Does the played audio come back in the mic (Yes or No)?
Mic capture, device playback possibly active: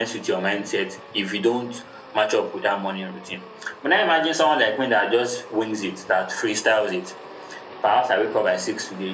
Yes